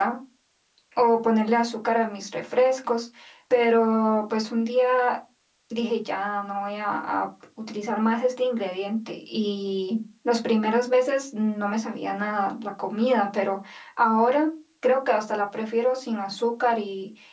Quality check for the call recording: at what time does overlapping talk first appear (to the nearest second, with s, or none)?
none